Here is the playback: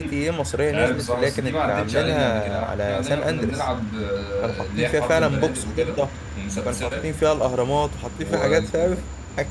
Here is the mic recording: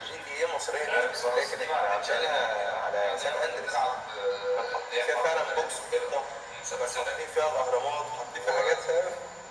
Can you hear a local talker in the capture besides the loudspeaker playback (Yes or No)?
No